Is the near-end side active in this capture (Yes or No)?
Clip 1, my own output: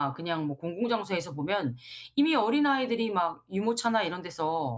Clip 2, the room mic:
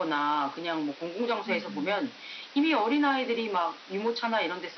Yes